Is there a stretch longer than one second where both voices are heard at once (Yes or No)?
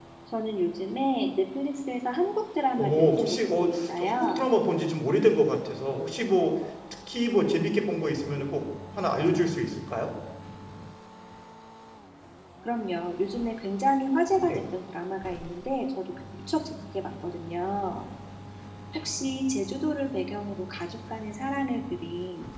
Yes